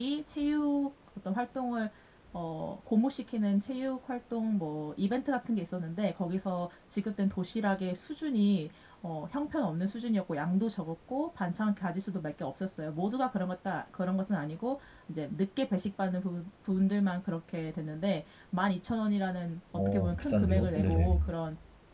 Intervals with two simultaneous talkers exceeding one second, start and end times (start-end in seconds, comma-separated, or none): 19.9-21.3